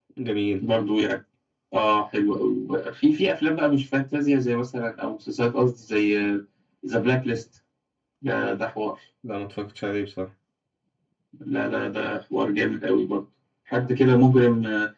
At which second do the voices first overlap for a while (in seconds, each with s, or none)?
none